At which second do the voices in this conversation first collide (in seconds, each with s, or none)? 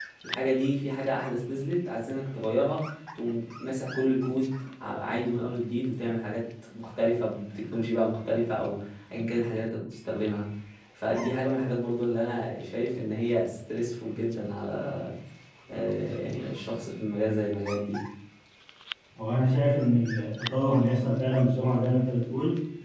none